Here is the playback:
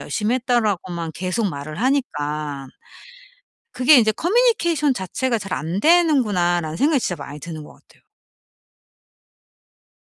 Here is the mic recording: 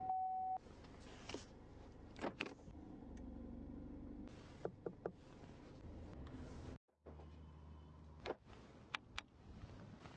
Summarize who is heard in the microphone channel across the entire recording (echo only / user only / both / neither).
neither